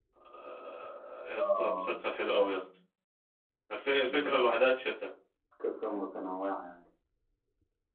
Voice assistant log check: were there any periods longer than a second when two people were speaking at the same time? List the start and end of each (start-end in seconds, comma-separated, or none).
1.4-2.6